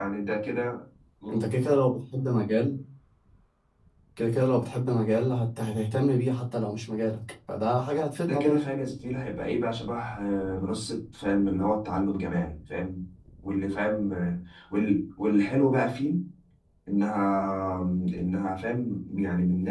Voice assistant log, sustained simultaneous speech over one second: none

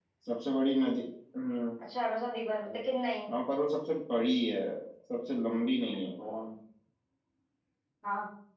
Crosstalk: none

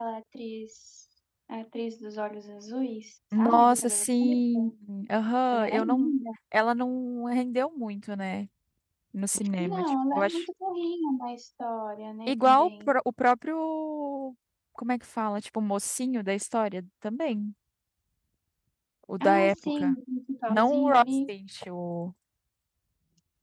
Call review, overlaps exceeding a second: present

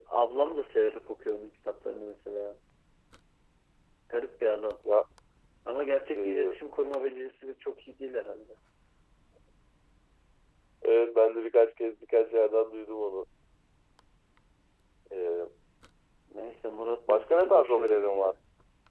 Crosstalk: present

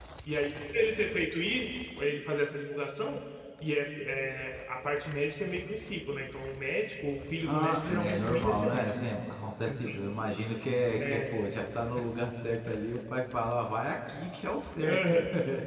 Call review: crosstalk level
present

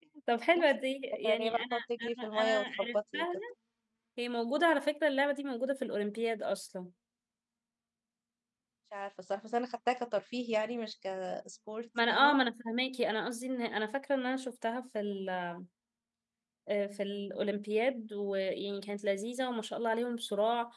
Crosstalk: present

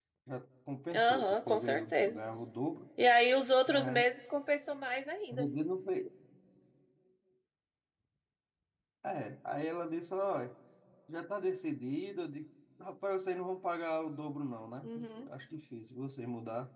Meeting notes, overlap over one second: present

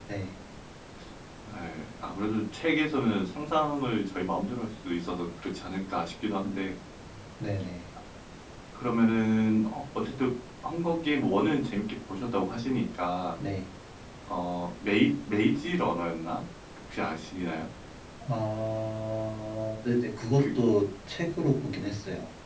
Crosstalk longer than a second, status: none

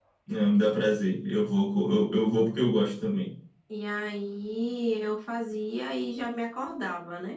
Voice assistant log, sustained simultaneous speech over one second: none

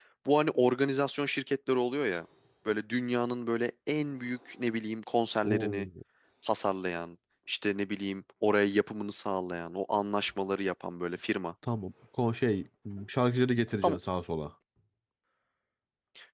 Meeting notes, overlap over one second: none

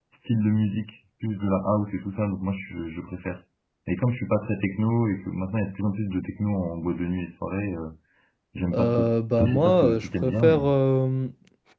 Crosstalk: present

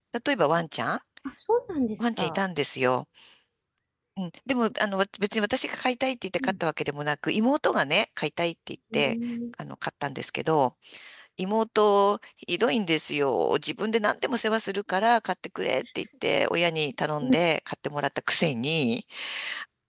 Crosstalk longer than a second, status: none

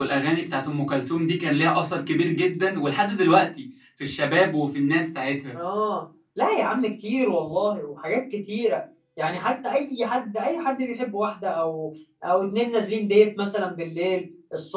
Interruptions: none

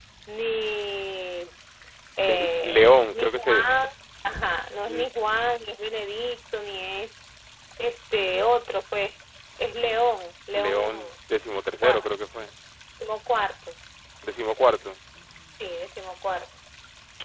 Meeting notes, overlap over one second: present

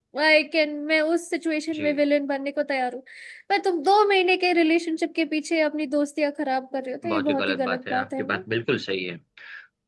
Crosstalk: present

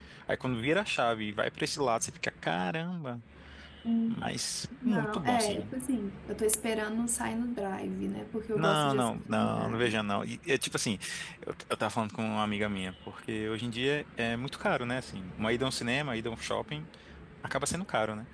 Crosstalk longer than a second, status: present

